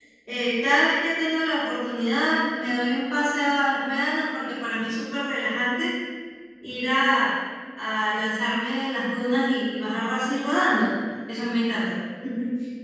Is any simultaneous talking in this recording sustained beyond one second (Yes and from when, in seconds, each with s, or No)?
No